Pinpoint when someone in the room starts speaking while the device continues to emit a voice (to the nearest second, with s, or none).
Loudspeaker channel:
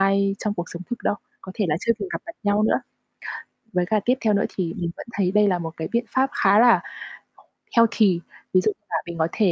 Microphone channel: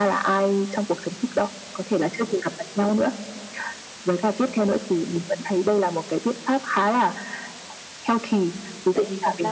8 s